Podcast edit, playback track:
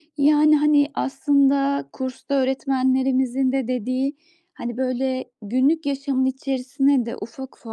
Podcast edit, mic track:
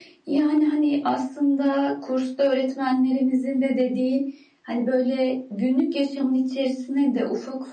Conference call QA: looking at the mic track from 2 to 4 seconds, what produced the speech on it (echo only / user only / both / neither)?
echo only